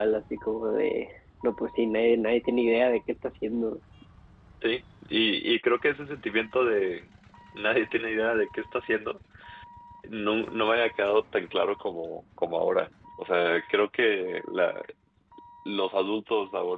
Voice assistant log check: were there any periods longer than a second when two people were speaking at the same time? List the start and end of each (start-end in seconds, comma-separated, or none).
none